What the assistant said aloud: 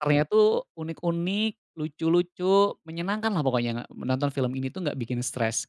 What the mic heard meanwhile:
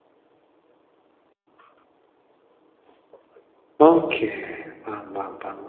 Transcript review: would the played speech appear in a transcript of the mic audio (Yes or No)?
No